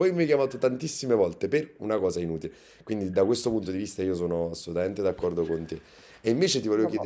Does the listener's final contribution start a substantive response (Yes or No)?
No